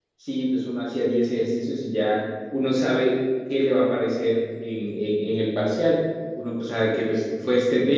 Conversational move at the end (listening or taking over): listening